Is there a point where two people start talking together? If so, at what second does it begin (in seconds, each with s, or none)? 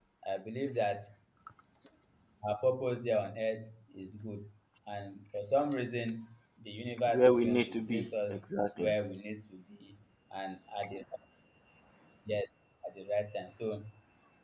7.1 s